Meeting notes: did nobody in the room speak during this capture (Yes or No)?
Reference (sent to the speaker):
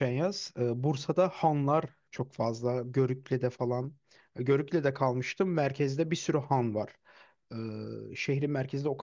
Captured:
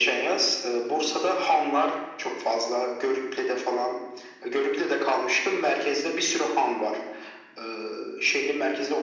Yes